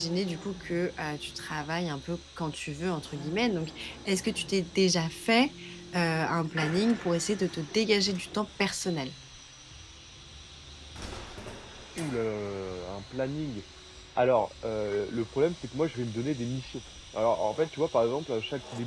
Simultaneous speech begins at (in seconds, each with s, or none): none